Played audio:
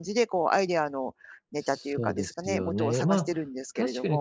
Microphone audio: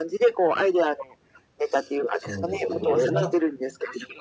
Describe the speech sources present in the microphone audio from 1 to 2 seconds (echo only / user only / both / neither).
echo only